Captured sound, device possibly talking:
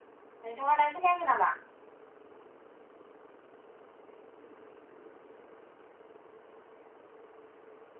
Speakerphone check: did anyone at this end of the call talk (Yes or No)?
Yes